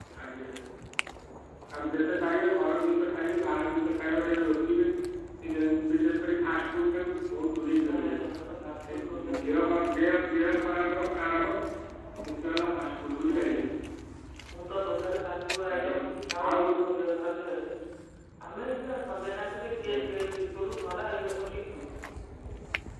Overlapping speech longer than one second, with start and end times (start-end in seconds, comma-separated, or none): none